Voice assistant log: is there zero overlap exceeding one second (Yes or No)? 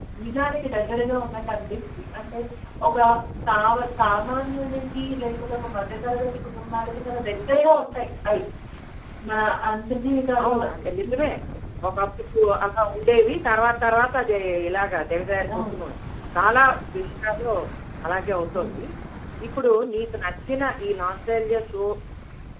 Yes